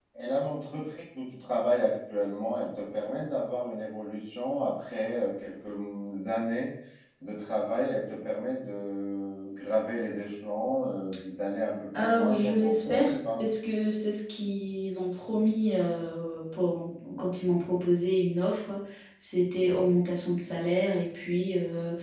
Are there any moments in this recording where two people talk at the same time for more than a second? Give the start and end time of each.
12.0-13.4

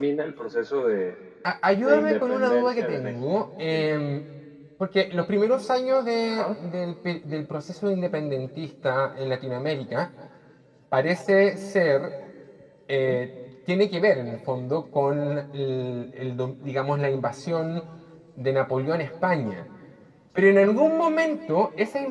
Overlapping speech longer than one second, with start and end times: 1.8-3.1

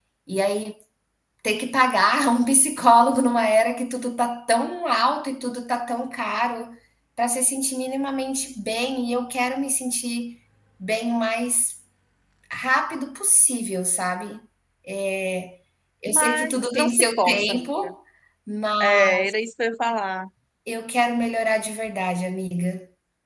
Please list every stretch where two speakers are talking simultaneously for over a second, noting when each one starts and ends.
16.1-17.9

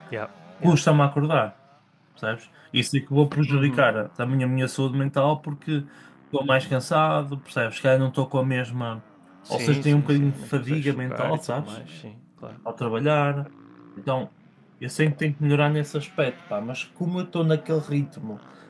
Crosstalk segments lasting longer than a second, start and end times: 9.5-11.6

